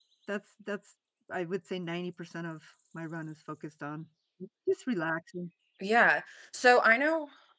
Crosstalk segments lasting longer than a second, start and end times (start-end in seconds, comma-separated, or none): none